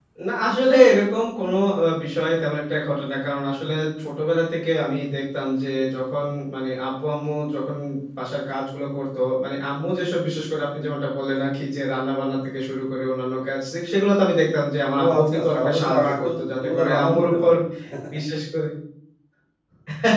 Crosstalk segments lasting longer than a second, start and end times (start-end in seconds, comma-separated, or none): 15.0-17.5